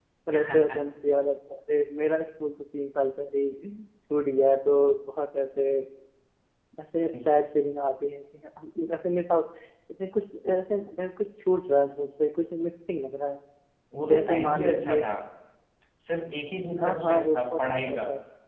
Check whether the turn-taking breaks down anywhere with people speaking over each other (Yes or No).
Yes